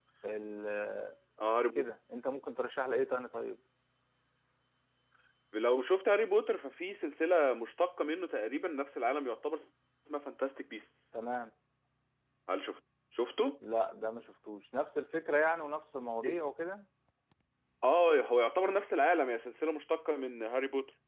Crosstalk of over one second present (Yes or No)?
No